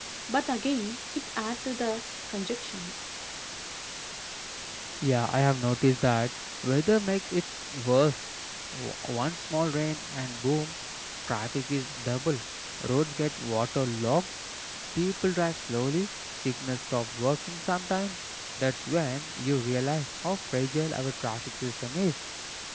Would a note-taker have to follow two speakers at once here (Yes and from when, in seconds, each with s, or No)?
No